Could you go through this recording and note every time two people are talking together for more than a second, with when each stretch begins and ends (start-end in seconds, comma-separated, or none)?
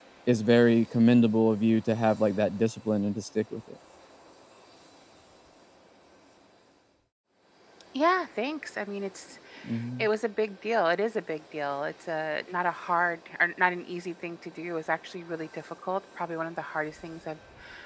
none